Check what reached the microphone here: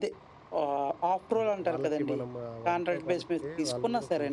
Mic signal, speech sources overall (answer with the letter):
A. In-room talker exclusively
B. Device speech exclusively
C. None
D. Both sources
D